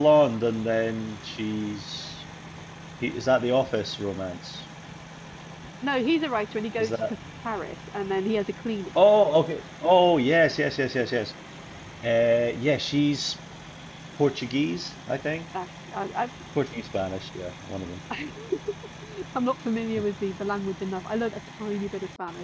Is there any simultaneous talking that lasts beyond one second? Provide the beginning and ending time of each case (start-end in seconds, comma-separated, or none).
none